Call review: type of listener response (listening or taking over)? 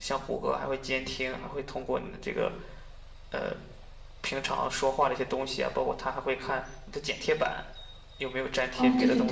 taking over